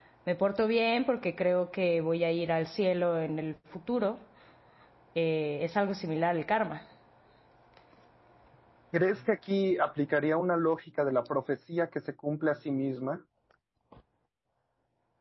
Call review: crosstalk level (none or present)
none